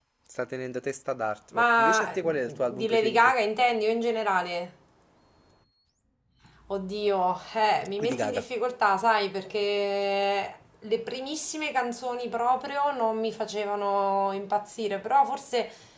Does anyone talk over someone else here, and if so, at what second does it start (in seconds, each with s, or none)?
1.6 s